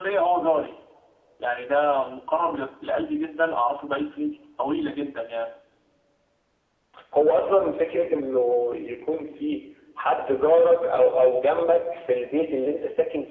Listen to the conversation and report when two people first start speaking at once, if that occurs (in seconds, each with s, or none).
none